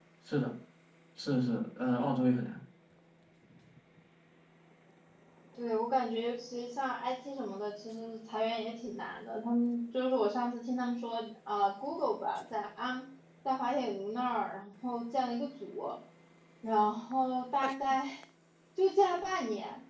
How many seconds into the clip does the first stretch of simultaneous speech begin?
none

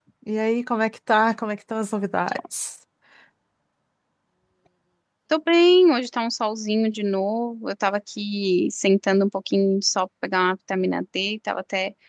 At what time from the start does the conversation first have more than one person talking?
none

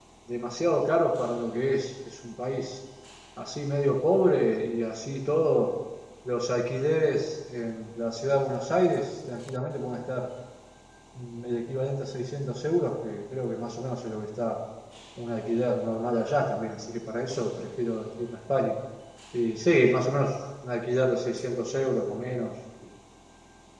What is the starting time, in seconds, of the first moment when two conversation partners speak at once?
none

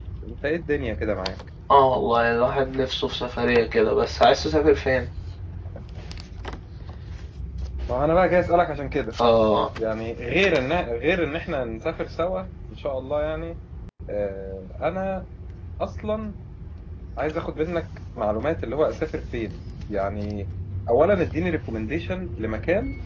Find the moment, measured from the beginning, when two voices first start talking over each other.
none

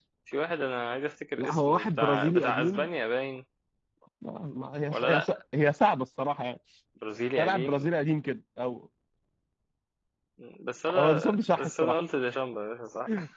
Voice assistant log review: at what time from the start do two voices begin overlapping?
1 s

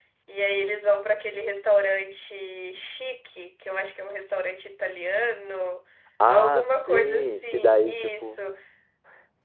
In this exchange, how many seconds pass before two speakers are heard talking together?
6 s

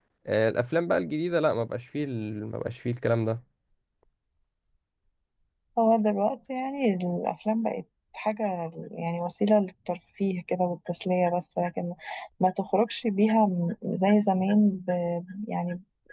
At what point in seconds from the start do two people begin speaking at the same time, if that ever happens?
none

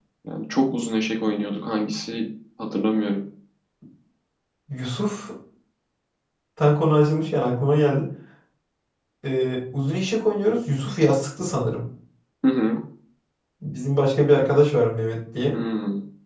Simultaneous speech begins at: none

